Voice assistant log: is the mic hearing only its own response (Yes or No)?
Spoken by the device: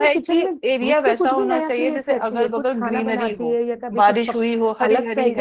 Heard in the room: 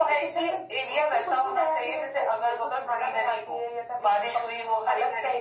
Yes